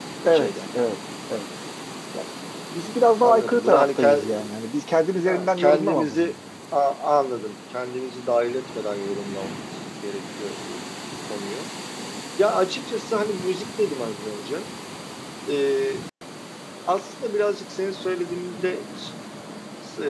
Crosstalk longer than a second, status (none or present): present